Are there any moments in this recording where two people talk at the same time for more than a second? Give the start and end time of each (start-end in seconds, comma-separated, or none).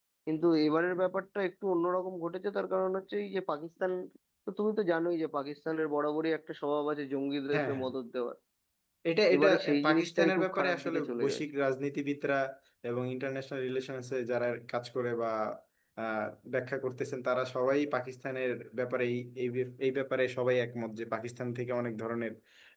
9.3-11.4